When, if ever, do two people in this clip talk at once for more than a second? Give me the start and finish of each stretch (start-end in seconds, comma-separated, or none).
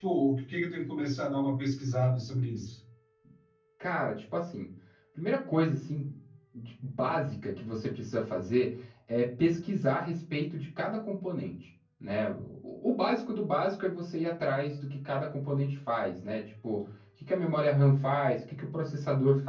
none